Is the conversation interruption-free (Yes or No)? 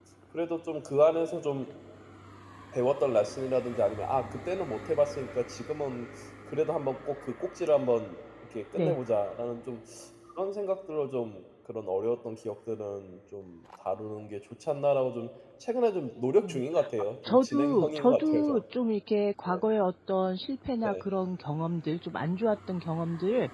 No